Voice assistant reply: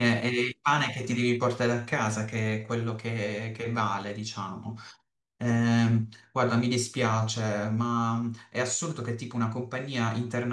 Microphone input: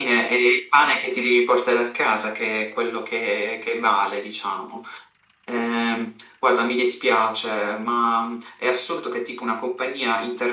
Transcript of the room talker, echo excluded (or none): none